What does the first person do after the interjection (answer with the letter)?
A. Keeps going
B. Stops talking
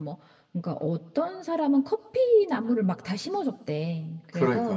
A